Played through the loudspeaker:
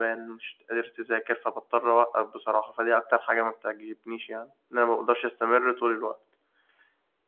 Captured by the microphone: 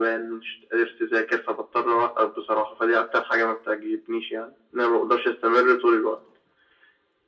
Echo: present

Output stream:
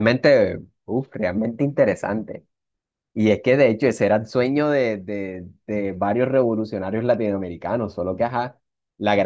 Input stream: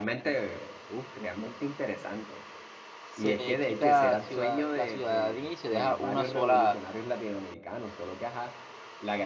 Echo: present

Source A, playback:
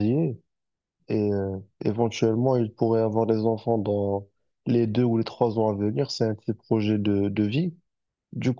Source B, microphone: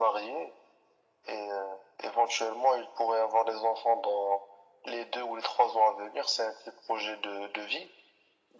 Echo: present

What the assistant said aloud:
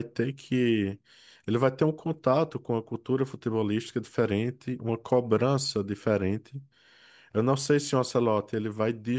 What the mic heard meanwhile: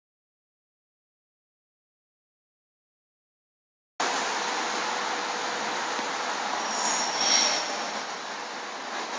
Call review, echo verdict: none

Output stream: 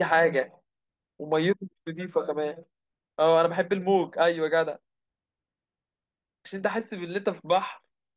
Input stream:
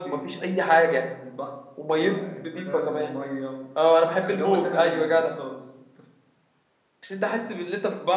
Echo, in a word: present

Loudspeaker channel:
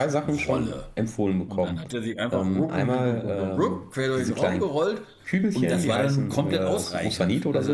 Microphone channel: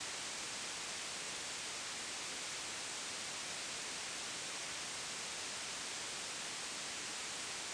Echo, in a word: none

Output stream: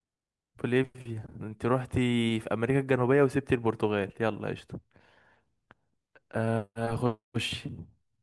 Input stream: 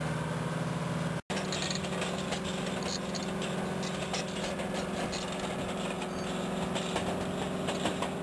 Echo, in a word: none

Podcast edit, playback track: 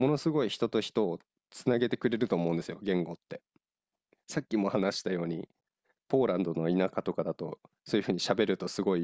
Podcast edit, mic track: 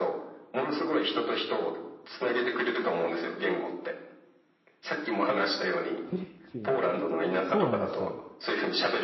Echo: present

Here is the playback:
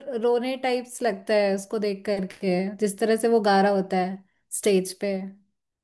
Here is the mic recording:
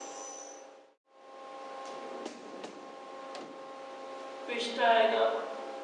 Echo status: none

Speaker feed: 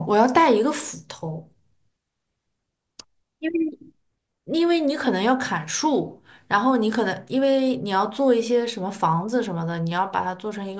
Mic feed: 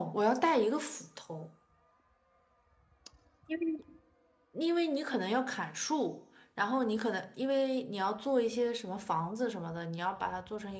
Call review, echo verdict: present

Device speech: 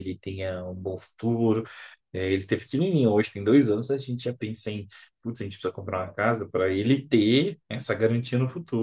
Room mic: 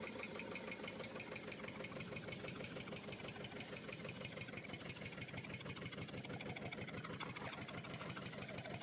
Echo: none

